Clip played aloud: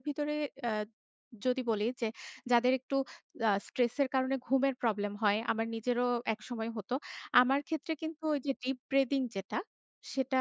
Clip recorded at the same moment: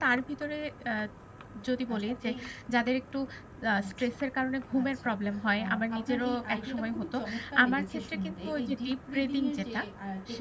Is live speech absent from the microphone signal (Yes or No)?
No